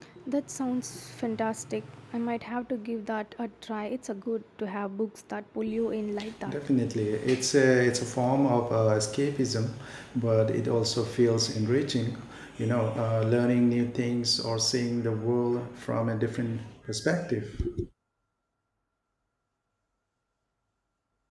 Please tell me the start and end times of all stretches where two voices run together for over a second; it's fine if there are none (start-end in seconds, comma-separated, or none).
none